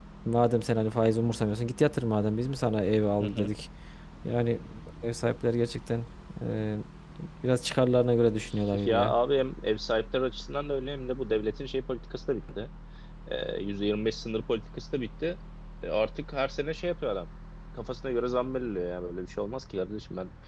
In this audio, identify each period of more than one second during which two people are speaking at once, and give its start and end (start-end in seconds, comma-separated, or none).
none